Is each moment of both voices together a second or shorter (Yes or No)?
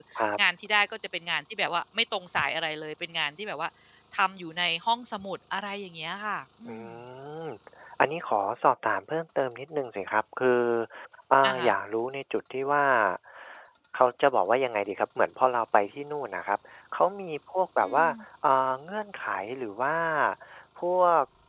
Yes